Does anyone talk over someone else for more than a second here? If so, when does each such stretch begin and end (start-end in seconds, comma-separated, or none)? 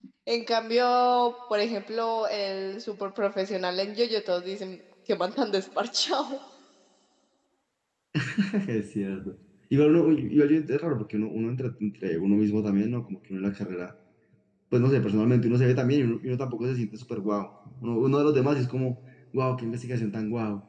none